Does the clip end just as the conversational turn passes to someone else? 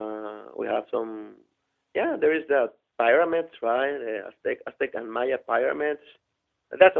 Yes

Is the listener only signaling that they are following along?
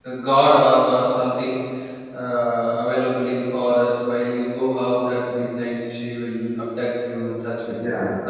No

